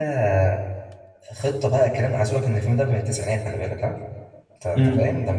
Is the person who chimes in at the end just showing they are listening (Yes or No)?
Yes